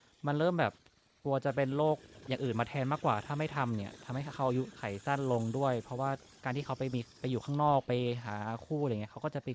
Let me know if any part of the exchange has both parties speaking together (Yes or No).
No